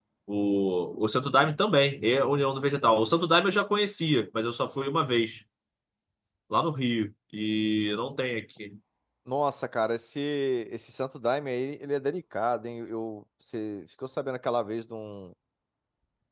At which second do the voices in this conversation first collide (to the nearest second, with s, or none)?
none